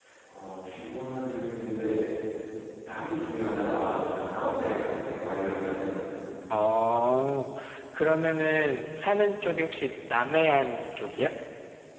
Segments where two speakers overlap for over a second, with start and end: none

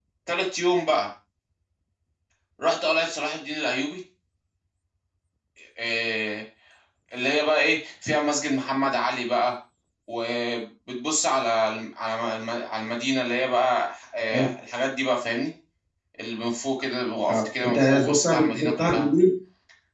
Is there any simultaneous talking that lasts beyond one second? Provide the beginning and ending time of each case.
17.3-19.1

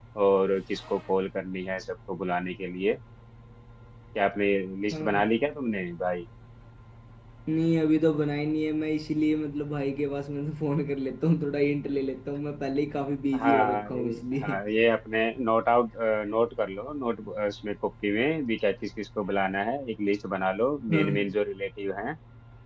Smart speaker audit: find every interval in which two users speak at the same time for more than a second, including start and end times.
13.4-14.6

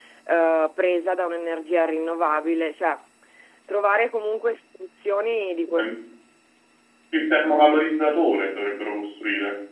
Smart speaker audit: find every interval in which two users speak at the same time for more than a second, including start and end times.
none

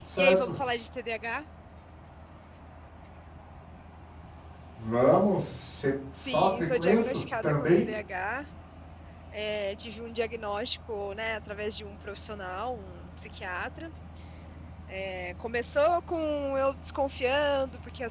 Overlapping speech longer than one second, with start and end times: 6.2-7.8

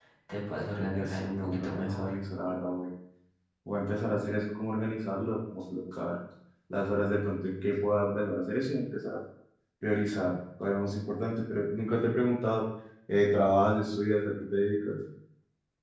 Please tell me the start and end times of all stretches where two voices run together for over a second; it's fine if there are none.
0.8-2.1

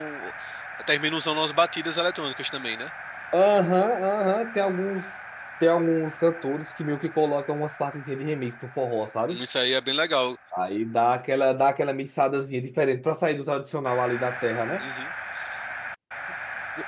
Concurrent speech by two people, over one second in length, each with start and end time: none

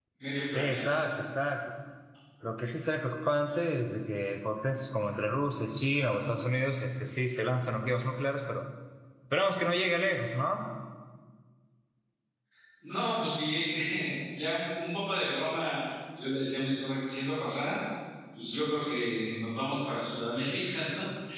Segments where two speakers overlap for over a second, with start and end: none

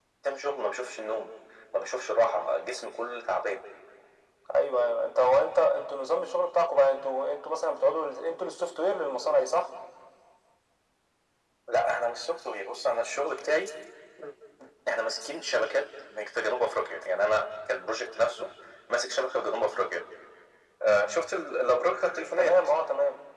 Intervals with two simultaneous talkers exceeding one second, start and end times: none

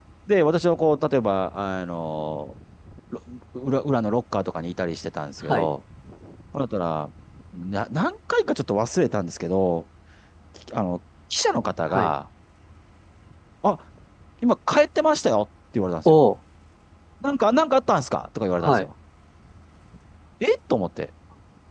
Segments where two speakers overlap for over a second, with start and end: none

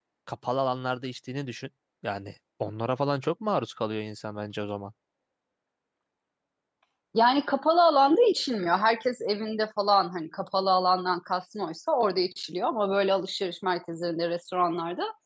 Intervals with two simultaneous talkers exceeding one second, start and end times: none

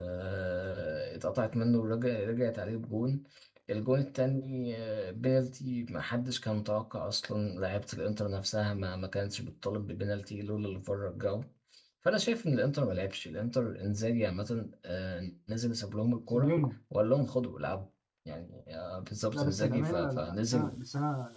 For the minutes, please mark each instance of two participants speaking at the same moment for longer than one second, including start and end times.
19.3-20.8

